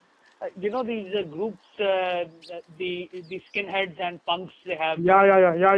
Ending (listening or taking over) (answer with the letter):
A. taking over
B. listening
A